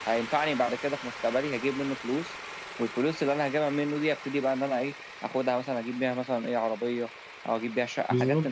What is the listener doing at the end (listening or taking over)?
taking over